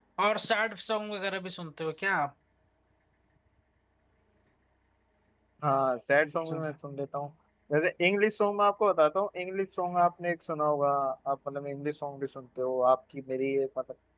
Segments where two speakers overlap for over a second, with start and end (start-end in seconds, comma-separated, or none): none